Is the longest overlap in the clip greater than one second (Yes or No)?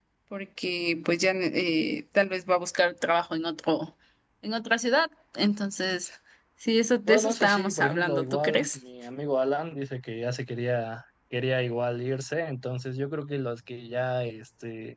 Yes